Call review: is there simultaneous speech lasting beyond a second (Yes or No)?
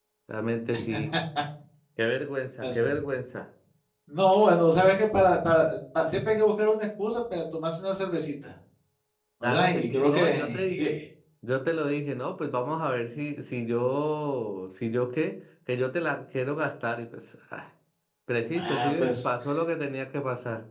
Yes